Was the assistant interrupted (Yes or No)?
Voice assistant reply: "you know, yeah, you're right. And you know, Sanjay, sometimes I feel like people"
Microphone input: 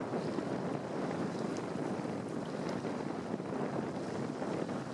No